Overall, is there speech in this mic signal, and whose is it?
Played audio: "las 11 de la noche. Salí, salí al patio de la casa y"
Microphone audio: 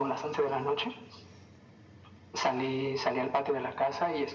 echo only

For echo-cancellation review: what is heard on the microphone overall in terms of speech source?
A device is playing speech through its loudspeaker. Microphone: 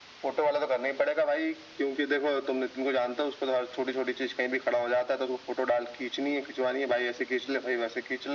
echo only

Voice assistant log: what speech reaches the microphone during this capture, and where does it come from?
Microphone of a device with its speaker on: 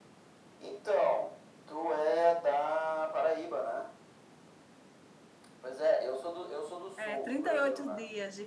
both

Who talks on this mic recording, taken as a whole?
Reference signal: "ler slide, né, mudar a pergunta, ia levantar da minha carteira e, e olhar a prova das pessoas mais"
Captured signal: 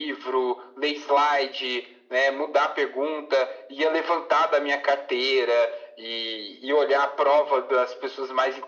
echo only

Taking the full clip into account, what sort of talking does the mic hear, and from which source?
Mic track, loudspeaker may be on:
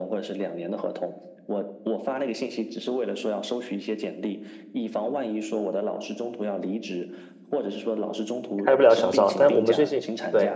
both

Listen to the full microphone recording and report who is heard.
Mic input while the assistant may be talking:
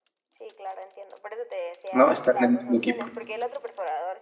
both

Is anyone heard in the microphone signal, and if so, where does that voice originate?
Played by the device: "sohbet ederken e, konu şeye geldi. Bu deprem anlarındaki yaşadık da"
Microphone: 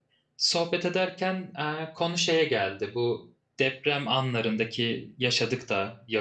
echo only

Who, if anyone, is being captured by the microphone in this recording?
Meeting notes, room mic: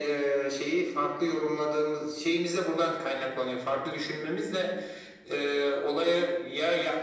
echo only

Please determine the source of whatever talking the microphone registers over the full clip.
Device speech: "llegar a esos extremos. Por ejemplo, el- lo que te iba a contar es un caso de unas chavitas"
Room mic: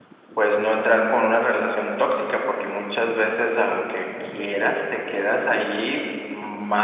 user only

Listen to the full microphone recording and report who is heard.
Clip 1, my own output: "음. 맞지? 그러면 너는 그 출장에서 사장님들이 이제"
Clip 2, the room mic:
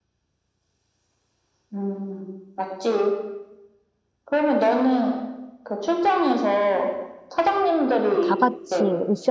both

